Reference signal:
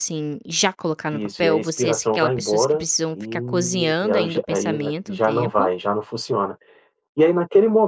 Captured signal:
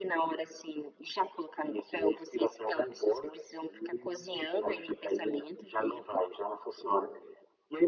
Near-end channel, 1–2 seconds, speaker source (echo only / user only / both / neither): echo only